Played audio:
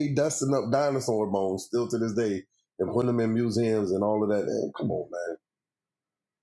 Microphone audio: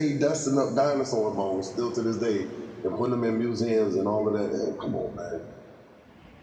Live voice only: none

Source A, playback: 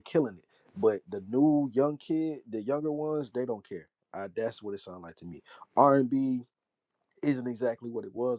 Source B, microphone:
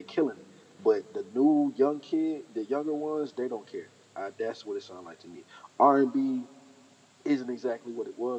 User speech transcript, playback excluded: none

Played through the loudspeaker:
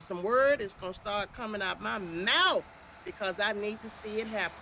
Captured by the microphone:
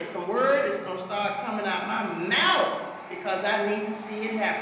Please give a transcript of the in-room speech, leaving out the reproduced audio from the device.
none

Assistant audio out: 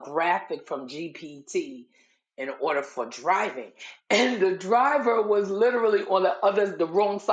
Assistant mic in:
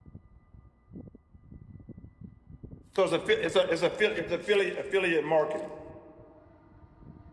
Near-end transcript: So it's a it's a it's a it's affiliate affiliate marketing.

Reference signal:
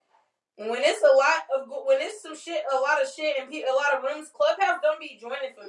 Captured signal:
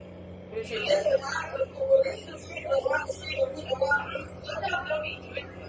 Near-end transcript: bitch, it does it.

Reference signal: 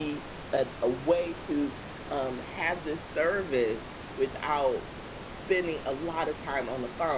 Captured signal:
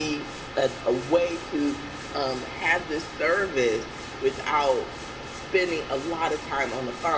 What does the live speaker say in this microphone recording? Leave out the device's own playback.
none

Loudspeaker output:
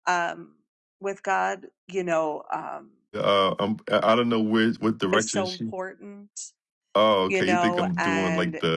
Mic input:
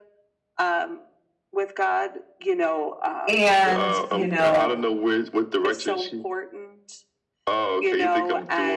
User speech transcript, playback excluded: and you know

